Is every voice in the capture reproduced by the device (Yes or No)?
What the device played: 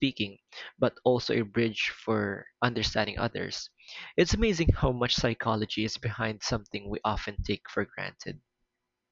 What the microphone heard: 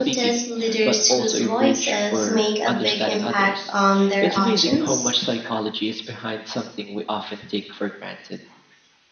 No